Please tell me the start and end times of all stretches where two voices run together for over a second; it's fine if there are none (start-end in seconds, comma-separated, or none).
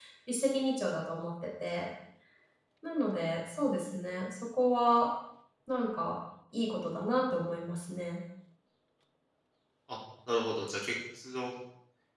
none